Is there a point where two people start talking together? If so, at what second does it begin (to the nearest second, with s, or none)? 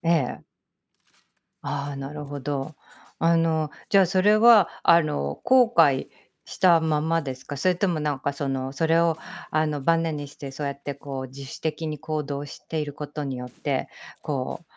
none